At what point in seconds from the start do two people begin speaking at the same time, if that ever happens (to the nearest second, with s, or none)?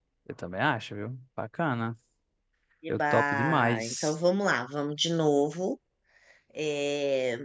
3 s